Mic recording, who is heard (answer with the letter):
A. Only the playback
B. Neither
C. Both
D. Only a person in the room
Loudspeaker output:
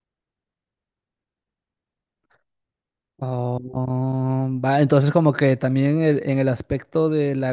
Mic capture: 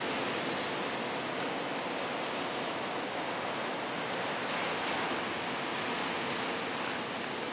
B